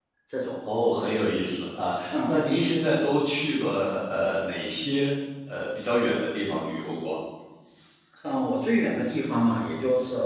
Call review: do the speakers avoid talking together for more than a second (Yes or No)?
Yes